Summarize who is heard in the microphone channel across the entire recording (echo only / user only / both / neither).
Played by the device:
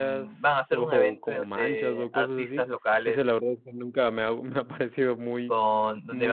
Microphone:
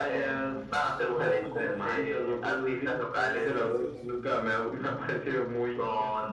both